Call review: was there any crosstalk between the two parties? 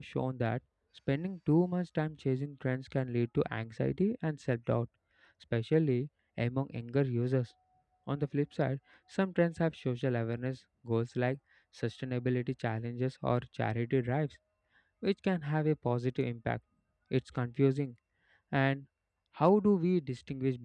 No

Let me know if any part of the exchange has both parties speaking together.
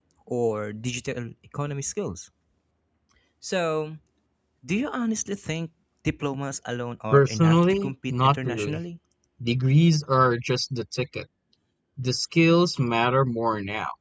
Yes, from 7.1 s

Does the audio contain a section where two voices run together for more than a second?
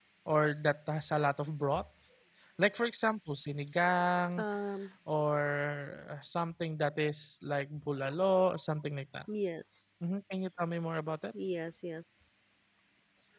No

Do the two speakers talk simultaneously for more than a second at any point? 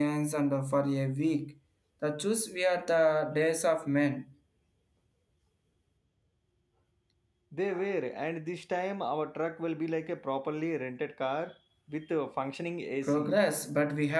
No

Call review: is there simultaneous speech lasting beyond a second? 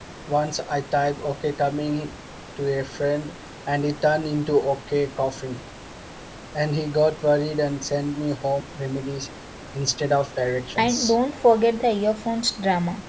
No

